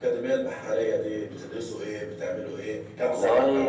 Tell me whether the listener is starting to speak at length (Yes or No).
Yes